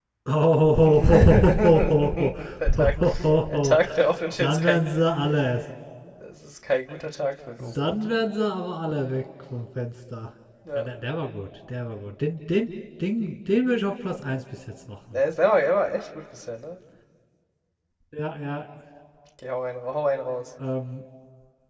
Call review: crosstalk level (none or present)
present